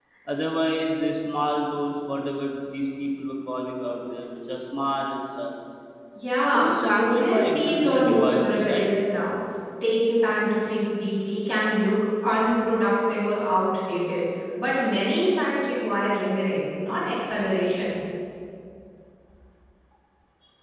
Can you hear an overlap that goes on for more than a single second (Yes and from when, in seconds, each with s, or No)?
Yes, from 6.5 s